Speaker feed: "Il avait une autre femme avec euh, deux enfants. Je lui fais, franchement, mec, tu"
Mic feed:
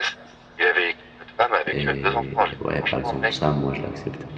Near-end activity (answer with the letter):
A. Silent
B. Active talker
B